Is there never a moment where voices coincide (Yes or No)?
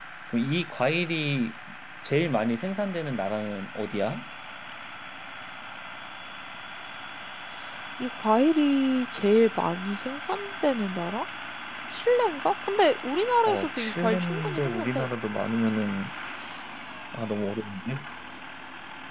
No